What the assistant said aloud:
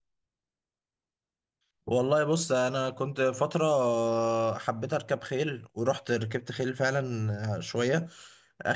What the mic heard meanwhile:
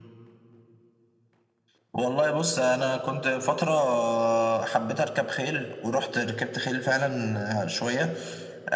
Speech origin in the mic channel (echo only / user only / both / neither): echo only